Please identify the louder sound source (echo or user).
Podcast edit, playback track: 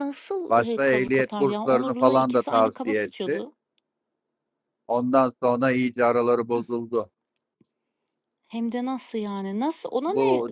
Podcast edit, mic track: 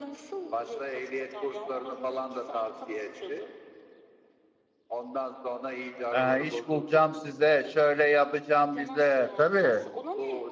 user